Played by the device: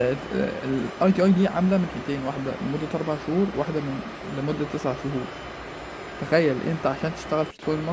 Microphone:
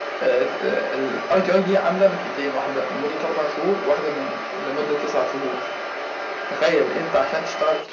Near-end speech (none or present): none